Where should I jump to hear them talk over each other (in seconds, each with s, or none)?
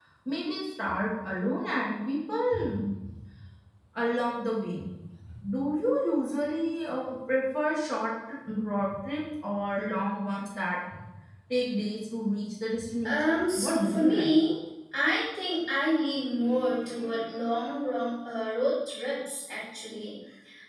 13.0 s